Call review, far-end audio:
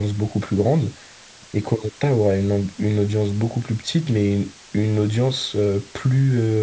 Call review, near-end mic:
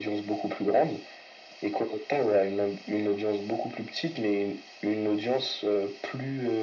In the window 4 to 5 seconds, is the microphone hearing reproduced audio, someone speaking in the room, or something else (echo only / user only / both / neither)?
echo only